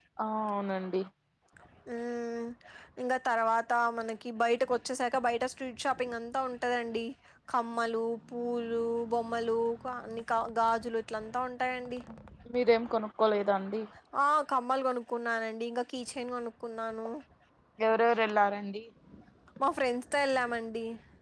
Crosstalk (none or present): none